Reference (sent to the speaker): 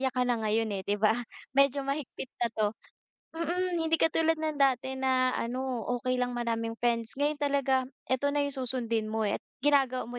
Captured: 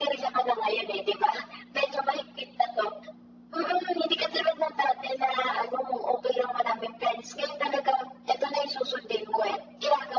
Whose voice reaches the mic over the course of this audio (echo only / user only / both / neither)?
echo only